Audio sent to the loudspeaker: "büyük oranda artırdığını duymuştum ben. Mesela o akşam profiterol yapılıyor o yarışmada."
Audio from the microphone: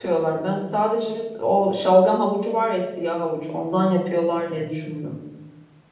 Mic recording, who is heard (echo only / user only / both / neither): user only